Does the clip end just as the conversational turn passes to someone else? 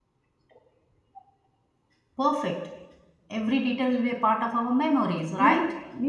Yes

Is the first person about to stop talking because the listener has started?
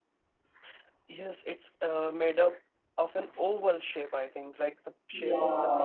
Yes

